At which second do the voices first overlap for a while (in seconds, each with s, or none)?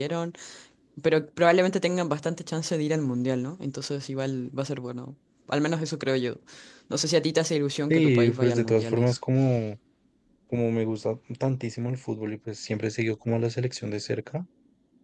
7.9 s